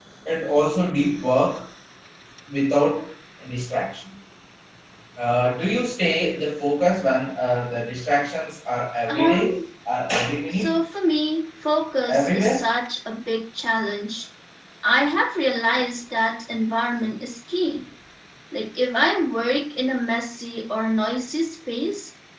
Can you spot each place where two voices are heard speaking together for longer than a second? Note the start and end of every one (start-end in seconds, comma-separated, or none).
none